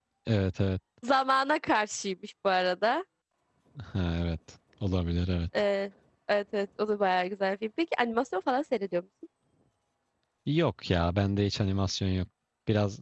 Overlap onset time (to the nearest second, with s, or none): none